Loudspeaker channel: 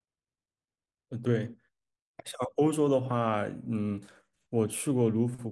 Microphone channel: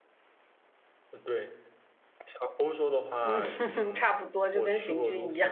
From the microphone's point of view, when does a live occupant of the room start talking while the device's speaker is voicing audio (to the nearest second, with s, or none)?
3 s